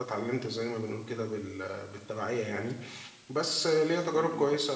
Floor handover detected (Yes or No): No